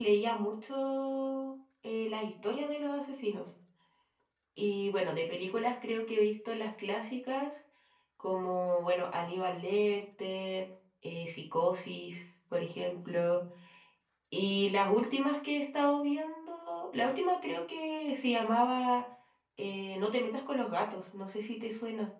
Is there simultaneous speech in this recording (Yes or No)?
No